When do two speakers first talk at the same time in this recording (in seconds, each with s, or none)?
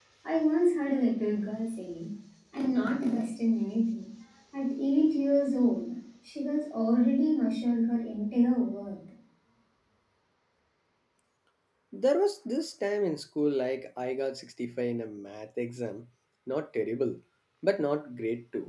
none